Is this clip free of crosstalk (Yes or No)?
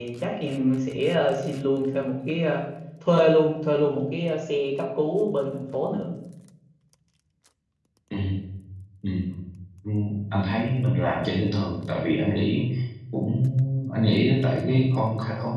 Yes